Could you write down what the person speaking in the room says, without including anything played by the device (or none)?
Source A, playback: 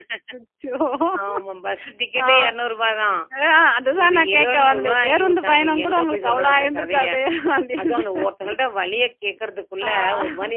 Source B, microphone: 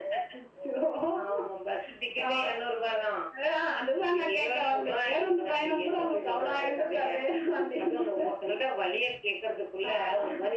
none